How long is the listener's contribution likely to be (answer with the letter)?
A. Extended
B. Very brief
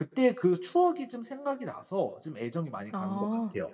A